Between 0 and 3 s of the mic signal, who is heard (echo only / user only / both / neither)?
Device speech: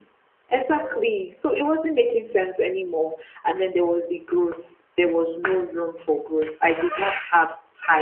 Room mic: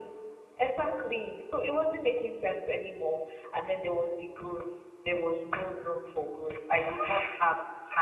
echo only